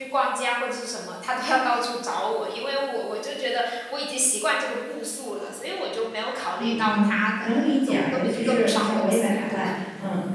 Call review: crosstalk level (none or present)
present